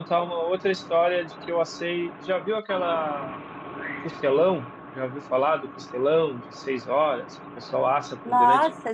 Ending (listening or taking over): taking over